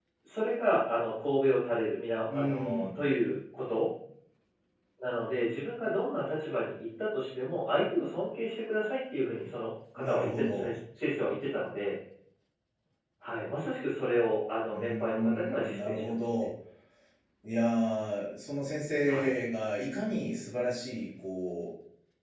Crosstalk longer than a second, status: present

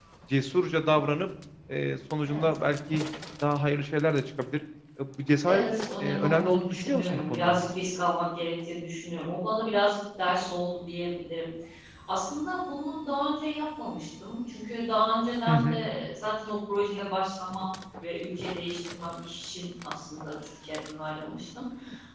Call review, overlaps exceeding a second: present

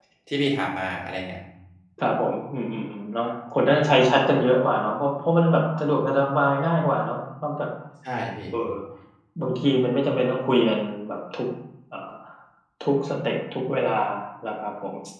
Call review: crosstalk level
none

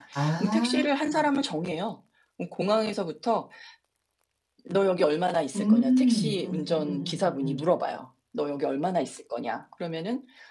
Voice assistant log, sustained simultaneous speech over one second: present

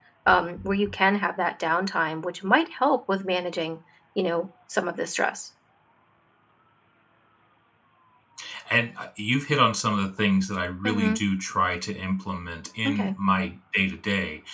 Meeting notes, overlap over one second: none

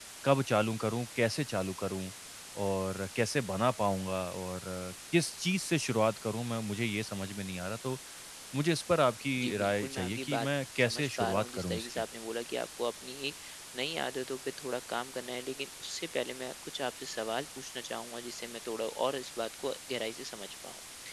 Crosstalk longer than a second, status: present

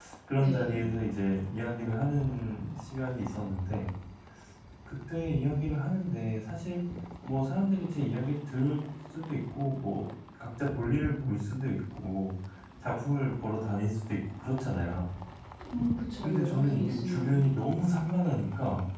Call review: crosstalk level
present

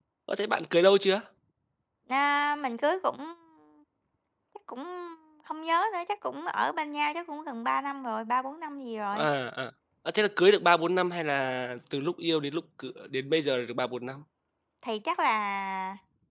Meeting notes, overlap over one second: none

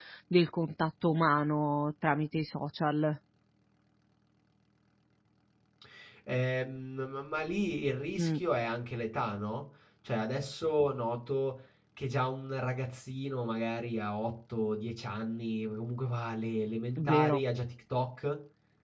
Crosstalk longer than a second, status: none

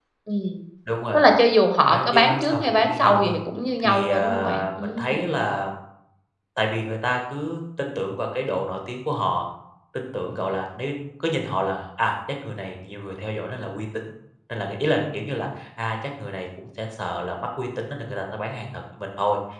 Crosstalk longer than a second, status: present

